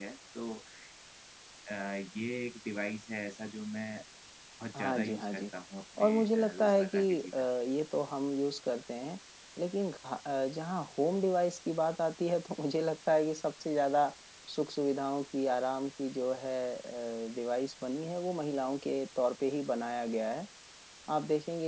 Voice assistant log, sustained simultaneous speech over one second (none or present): present